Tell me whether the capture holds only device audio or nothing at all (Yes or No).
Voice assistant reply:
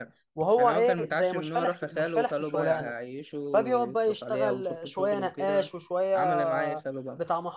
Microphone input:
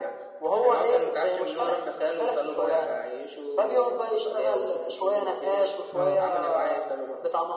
No